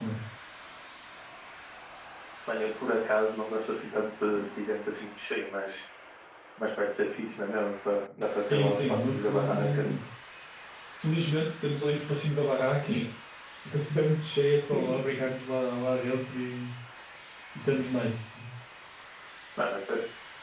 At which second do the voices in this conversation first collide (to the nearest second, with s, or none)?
9 s